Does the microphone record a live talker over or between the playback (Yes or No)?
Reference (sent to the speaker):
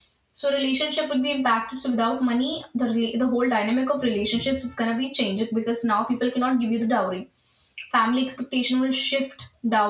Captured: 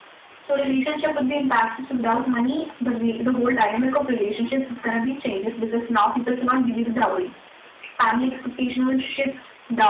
No